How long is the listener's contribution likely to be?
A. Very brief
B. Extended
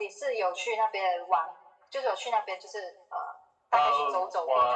B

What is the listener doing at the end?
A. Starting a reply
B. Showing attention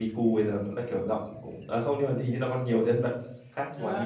A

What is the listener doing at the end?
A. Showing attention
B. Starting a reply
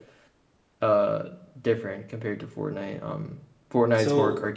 A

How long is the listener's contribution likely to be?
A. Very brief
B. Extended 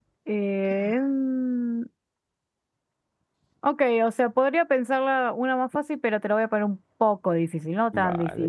B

